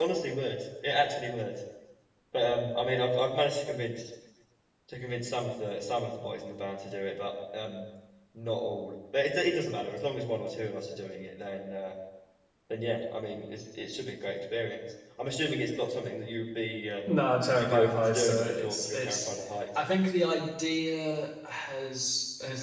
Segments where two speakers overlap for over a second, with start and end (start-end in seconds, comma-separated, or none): 17.6-19.3